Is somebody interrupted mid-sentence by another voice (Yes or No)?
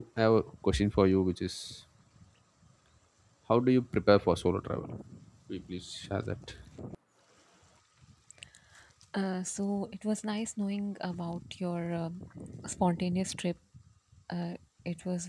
No